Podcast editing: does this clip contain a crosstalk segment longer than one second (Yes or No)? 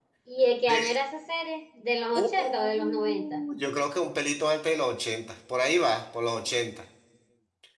Yes